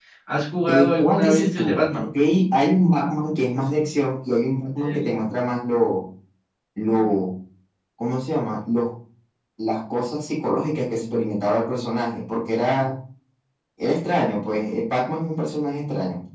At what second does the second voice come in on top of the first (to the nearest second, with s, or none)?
1 s